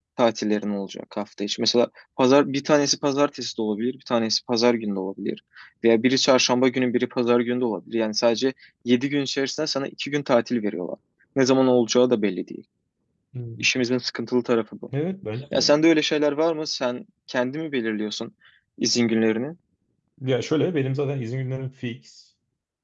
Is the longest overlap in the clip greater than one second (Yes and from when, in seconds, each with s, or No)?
No